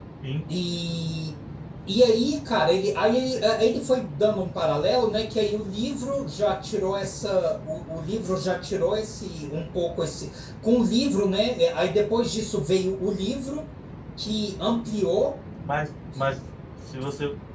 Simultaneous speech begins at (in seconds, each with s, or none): none